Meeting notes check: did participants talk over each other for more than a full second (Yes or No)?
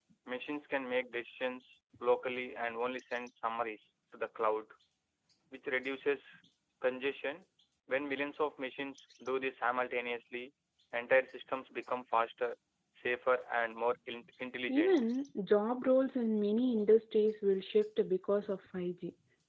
No